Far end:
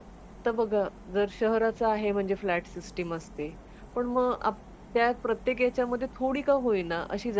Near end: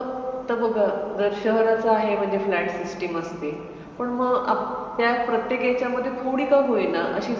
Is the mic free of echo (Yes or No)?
No